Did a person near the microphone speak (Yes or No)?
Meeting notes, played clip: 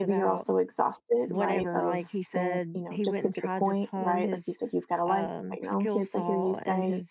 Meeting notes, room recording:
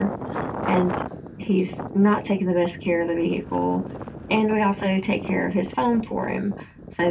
Yes